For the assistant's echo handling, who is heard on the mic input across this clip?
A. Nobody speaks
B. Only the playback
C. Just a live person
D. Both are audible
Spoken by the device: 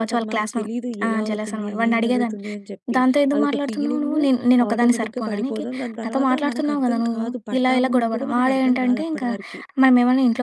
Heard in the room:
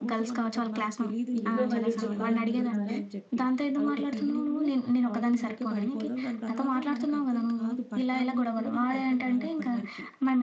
D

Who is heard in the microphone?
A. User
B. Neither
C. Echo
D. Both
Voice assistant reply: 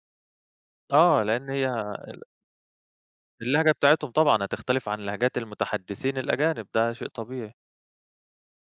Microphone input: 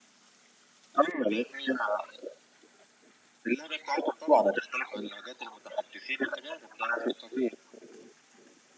C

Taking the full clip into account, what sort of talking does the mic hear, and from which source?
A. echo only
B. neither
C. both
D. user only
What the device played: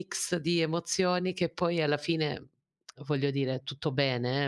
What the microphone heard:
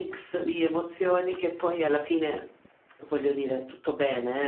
A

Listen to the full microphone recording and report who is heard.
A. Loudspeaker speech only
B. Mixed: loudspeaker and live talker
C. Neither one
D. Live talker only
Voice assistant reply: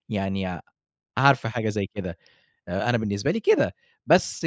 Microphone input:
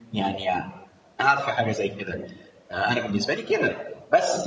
A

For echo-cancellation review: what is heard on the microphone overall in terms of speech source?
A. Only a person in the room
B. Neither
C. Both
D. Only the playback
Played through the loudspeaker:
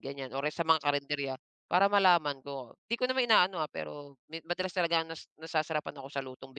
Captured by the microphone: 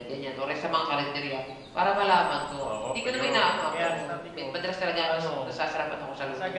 C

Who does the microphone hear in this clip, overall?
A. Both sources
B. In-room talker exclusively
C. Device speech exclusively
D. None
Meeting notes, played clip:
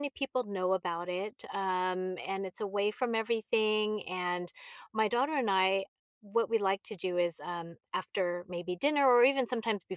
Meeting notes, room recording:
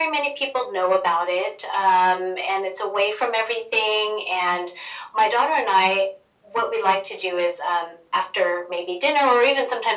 C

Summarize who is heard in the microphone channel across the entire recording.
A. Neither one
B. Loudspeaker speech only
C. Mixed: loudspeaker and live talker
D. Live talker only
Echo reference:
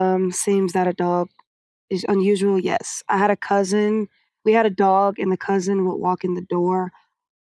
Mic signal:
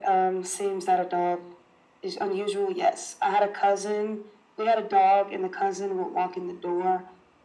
B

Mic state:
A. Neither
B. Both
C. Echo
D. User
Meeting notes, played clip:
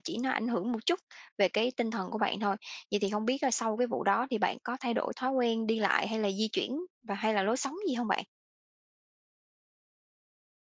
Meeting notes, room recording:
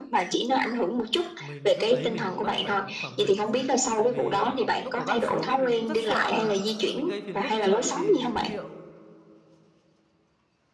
B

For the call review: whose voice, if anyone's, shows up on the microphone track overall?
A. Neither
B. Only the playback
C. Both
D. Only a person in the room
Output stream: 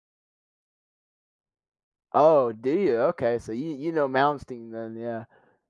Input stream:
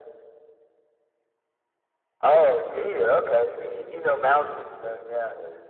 C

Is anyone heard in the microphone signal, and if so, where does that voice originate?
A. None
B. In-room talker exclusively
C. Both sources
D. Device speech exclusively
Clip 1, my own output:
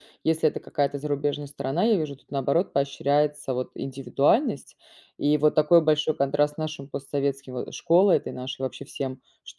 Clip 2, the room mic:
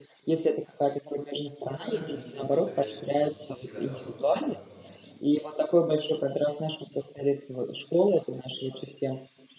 C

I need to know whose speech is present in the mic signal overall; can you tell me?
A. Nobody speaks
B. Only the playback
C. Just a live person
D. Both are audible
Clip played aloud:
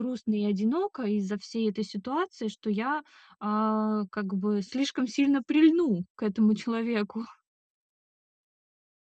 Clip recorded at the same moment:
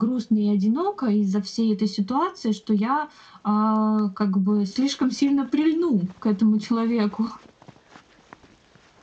B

